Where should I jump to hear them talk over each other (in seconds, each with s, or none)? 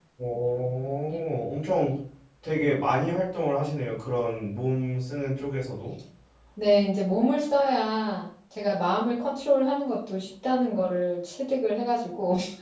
none